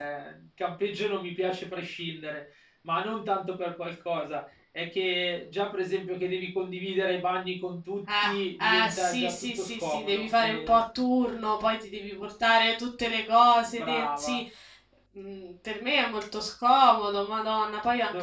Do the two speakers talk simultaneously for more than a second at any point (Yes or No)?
Yes